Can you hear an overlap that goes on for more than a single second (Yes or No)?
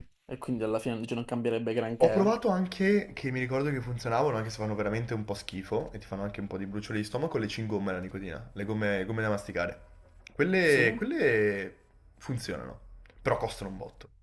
No